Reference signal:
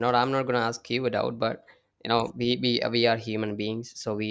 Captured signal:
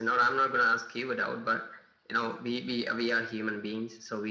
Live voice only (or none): none